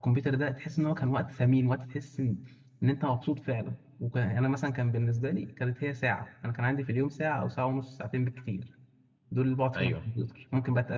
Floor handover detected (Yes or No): No